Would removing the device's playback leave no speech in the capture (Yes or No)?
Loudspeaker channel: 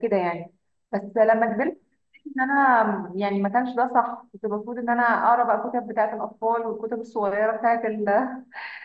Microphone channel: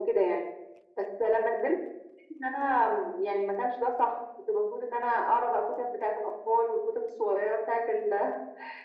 Yes